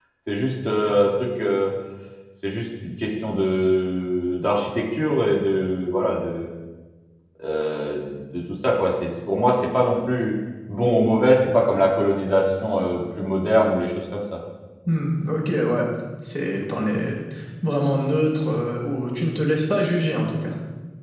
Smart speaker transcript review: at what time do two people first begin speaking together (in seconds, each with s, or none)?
none